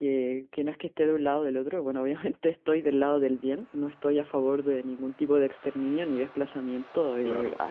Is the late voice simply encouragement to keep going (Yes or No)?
Yes